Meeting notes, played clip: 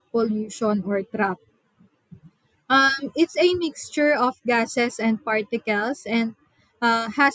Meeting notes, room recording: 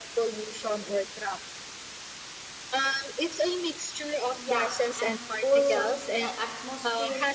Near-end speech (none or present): present